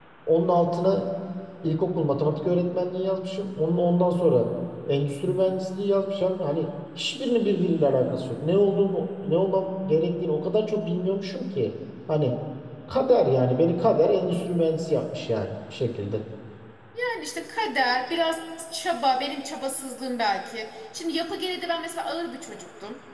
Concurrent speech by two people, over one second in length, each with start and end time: none

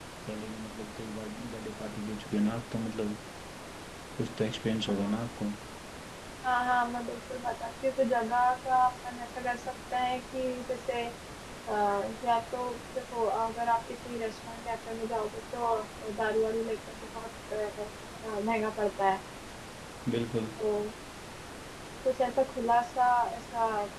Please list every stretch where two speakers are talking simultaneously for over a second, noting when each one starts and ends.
none

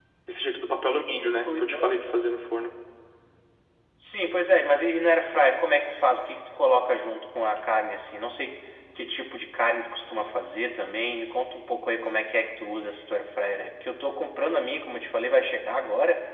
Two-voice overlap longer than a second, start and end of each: none

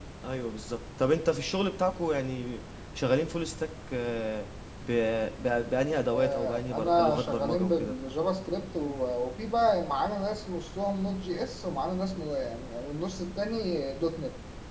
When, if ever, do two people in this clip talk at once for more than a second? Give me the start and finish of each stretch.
6.1-8.0

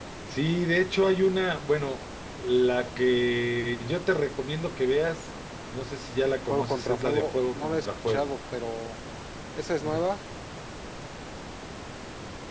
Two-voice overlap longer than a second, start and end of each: 6.5-8.4

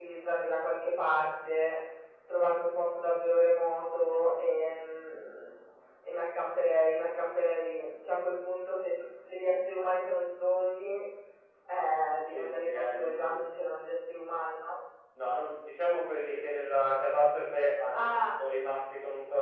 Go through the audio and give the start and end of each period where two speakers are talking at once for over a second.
12.0-13.4

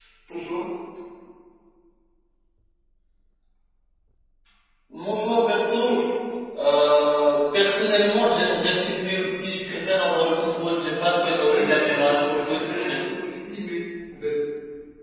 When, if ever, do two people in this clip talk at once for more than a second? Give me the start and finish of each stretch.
11.3-13.0

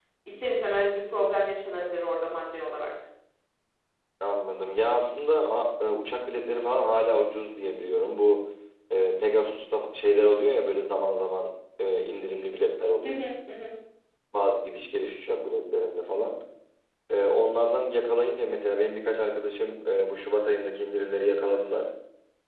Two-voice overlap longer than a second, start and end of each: none

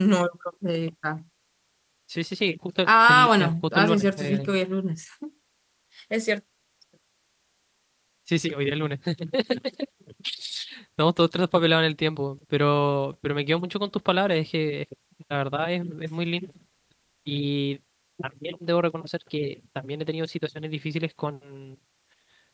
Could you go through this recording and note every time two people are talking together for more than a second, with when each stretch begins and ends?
2.8-4.5

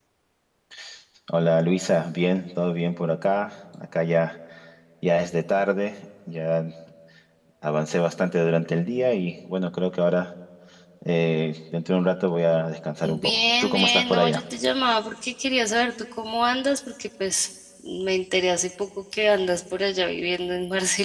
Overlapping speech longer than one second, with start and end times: 13.0-14.4

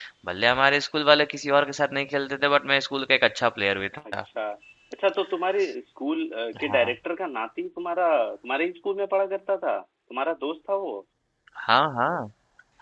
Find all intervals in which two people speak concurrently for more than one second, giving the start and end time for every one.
none

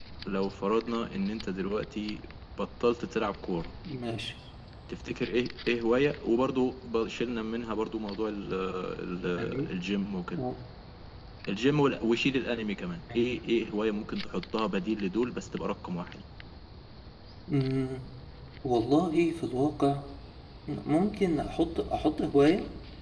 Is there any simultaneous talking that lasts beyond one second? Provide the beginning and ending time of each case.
none

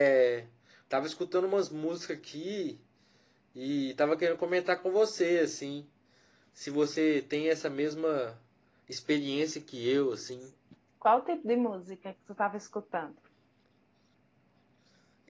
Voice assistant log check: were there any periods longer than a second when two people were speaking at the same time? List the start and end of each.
none

